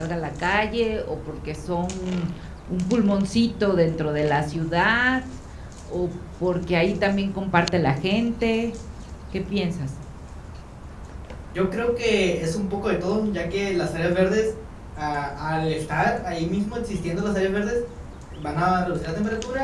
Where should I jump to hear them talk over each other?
none

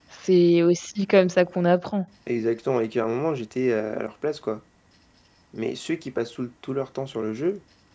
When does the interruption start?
none

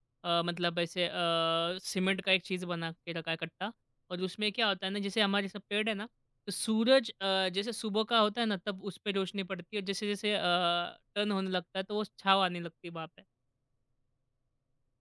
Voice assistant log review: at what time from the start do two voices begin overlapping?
none

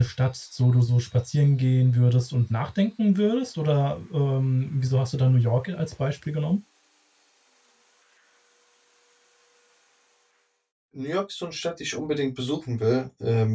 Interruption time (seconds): none

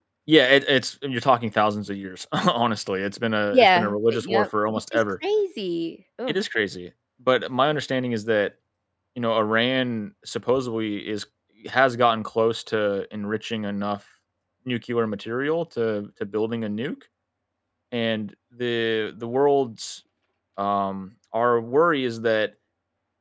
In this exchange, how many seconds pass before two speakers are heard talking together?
3.5 s

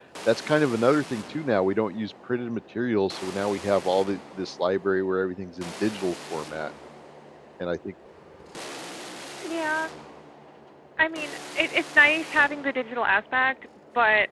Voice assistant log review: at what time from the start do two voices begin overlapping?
none

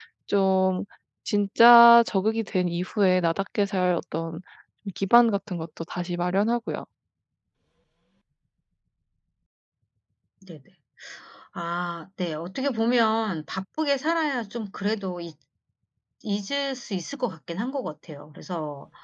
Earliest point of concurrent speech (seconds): none

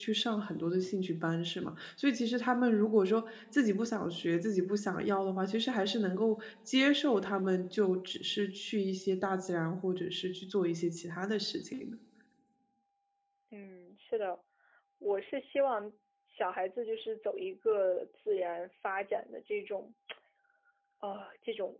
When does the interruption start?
none

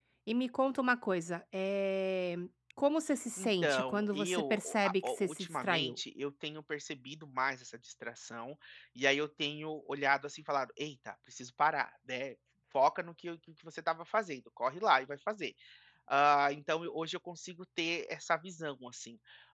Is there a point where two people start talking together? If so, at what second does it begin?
3.4 s

